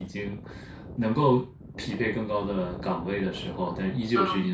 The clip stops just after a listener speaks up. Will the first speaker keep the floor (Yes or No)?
Yes